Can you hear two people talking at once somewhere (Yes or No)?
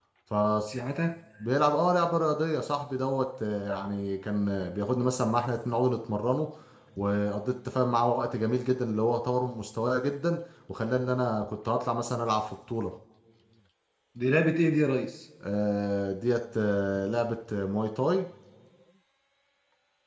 No